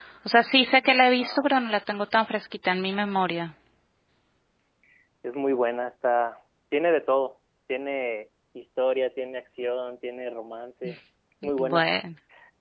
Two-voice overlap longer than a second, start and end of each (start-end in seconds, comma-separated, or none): none